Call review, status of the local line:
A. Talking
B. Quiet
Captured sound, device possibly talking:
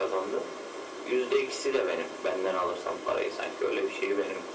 B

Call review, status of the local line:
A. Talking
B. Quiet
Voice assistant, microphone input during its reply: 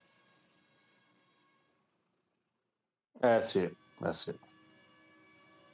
A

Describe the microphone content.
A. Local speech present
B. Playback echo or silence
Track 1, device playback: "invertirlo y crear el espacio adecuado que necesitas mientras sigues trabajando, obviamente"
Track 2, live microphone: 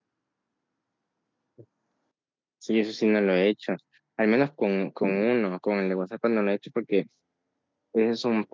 A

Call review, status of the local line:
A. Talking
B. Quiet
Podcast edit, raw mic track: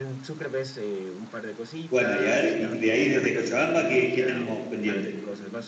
A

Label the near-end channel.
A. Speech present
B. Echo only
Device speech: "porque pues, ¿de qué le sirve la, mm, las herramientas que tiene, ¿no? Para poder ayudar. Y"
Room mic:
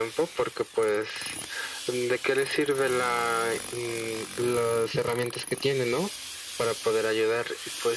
B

